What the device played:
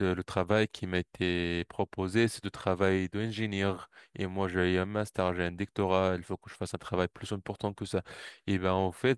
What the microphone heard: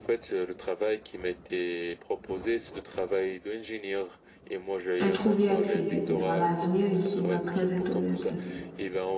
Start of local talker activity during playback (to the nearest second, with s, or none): 5 s